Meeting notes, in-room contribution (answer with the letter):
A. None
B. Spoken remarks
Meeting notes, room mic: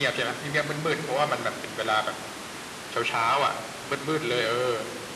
A